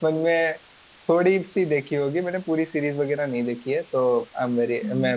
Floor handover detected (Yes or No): No